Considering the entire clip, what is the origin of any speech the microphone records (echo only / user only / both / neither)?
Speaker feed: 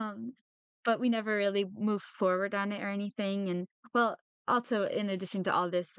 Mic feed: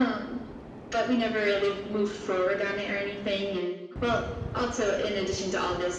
echo only